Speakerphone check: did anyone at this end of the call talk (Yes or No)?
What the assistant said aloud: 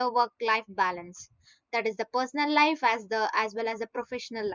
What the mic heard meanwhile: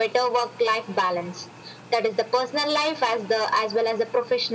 No